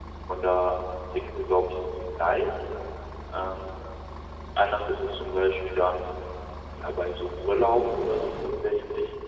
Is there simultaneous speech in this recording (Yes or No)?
No